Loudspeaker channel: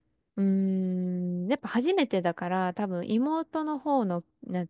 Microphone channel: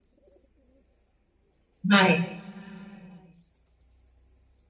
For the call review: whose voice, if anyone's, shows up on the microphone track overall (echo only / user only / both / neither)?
user only